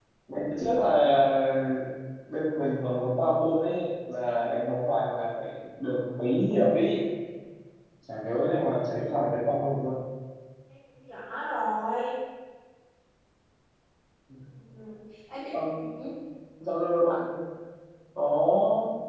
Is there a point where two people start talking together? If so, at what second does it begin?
none

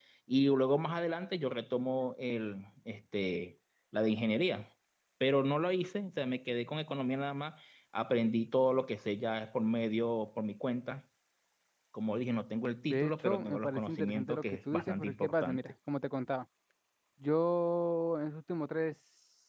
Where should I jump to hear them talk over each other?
12.9 s

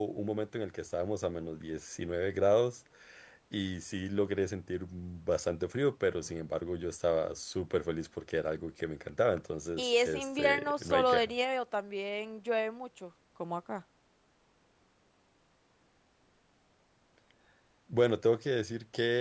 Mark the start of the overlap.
9.8 s

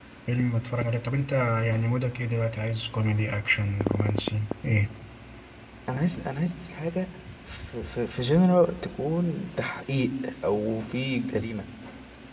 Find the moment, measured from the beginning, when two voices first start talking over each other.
none

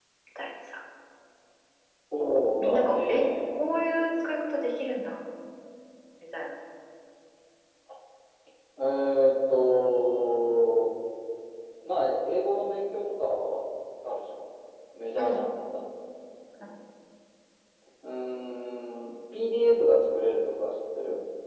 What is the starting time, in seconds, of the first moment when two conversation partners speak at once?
2.2 s

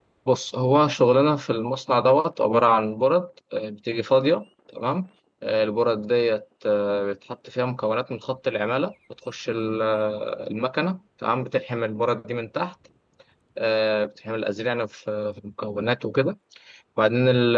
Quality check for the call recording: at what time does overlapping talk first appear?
none

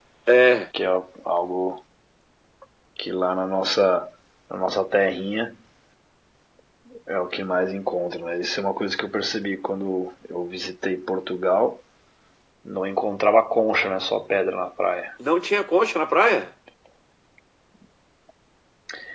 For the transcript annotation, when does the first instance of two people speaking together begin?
none

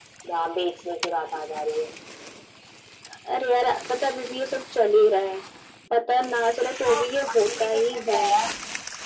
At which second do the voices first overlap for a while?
6.8 s

